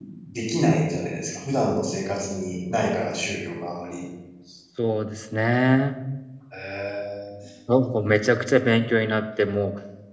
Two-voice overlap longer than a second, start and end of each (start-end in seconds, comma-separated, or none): none